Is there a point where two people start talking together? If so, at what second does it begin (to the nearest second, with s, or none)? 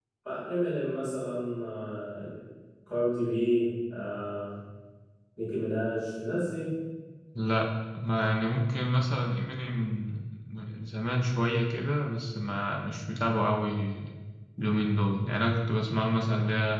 none